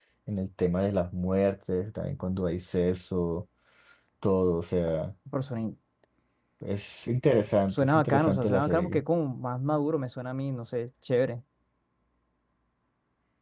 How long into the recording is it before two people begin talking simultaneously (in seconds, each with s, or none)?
7.7 s